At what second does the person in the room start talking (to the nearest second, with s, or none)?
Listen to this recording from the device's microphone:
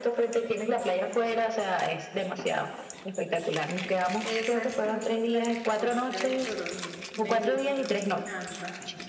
4 s